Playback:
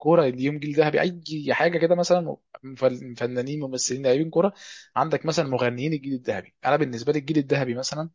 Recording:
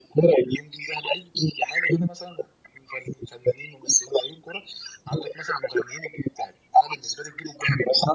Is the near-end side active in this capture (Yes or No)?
No